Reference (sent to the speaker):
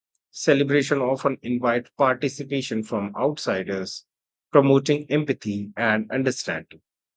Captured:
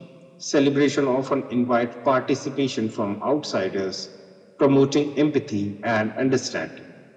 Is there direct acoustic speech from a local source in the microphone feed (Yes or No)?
No